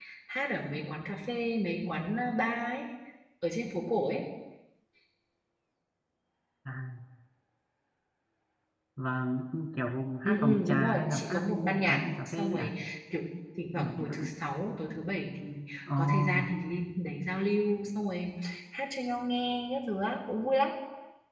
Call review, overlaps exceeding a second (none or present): present